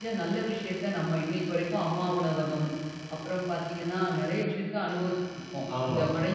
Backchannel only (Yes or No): No